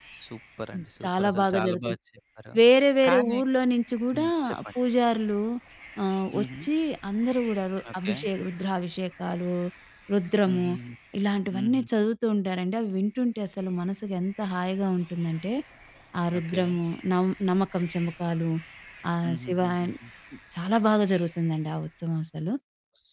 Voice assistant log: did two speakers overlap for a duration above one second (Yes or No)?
Yes